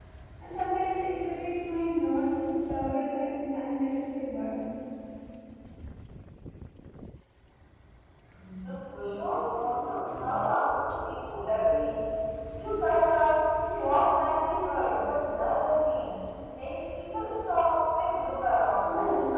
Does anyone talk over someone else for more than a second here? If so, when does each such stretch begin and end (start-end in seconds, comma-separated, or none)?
none